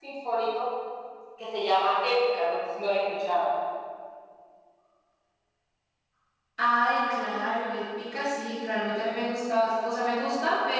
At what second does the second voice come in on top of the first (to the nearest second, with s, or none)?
none